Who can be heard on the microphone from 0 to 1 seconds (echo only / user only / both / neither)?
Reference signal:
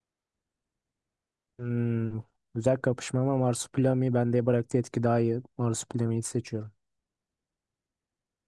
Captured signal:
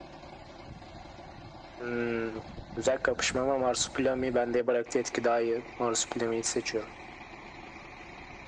neither